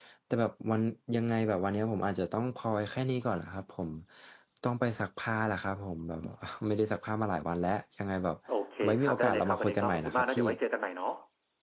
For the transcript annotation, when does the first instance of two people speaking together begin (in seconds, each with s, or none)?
8.8 s